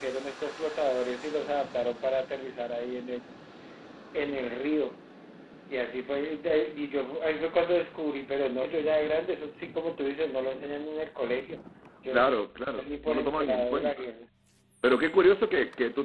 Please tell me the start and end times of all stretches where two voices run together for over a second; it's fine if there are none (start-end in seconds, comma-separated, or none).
12.1-14.1